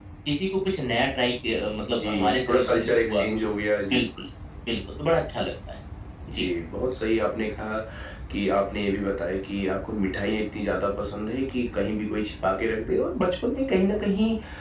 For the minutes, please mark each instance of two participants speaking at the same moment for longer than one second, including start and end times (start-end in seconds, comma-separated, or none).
1.9-3.2